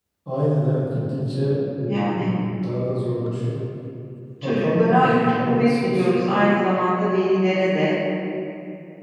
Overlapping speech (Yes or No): Yes